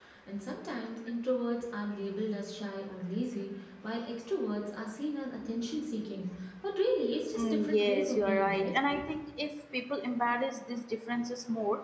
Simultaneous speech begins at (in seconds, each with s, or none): 7.4 s